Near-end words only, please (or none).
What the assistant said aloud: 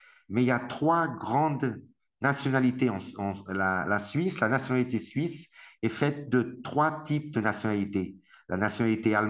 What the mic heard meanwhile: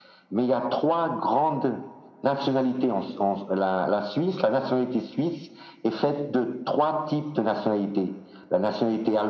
none